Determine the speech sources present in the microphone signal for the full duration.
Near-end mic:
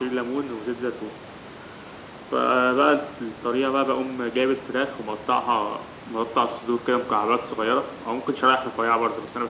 echo only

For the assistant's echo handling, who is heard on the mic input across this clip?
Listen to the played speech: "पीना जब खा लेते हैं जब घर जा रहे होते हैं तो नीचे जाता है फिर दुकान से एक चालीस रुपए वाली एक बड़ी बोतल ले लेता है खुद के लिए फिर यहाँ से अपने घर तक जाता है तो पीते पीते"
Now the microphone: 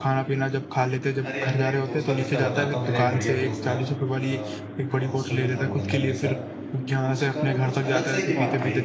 both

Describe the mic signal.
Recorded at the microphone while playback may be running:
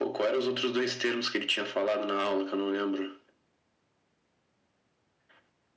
echo only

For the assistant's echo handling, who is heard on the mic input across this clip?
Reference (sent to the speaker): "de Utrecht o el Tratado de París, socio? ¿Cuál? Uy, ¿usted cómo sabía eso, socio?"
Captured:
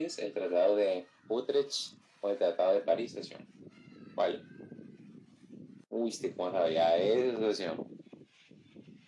echo only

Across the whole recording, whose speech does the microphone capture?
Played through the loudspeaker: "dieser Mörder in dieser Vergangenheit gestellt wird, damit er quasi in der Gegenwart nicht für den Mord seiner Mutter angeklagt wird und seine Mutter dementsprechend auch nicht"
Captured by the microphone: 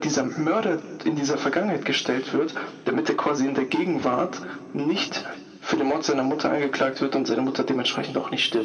echo only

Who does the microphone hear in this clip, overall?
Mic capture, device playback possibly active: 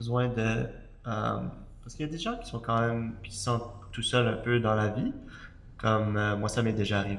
user only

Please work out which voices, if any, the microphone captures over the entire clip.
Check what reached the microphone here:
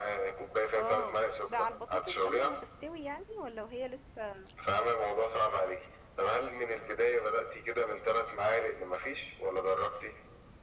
both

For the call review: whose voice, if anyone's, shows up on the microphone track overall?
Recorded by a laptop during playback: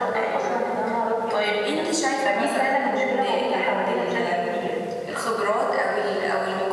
echo only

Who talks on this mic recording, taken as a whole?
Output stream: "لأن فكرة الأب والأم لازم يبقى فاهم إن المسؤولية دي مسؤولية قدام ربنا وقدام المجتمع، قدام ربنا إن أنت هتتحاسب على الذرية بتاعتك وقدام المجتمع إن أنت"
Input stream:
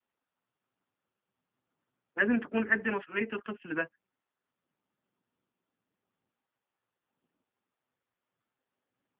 user only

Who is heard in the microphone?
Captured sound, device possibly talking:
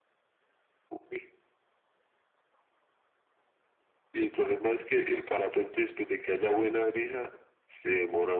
echo only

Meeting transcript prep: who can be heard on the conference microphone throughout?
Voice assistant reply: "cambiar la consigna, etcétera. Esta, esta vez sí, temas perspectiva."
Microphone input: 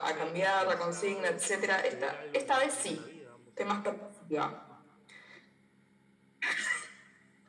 both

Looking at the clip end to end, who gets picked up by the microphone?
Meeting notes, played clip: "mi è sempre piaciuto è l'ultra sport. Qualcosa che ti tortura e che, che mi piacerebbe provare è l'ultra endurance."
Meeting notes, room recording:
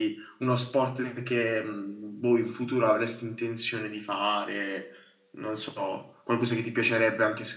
user only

